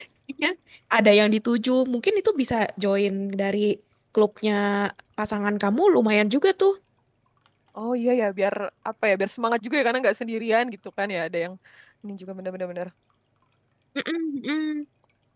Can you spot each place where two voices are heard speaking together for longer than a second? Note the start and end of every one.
none

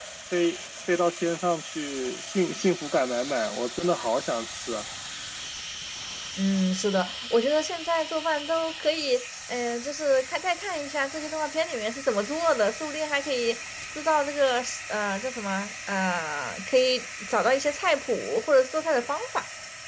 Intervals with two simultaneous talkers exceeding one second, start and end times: none

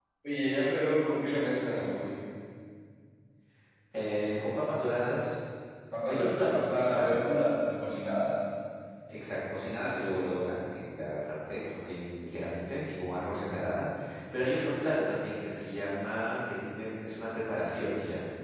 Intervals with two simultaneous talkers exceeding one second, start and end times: 6.1-7.3

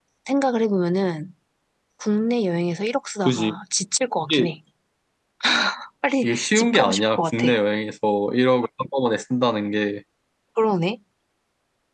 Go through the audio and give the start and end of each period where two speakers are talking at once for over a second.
6.2-7.5

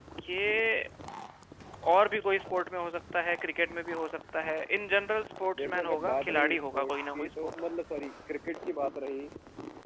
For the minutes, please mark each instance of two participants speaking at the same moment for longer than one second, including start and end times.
5.6-7.5

